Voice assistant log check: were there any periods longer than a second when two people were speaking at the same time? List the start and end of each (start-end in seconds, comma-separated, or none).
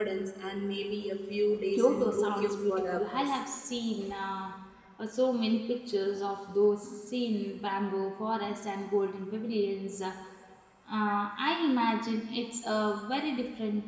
1.8-3.3